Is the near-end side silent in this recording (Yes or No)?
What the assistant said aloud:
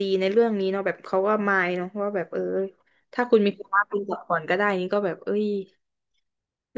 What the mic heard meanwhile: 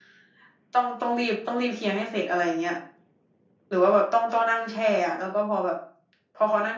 No